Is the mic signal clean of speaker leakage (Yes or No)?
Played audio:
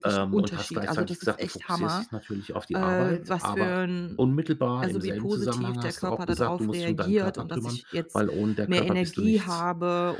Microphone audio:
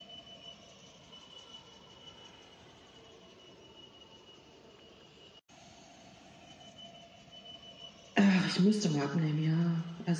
Yes